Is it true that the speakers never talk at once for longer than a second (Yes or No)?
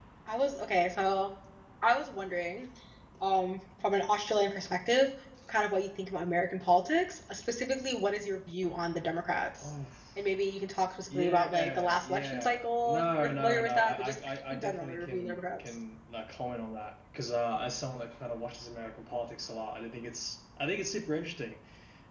No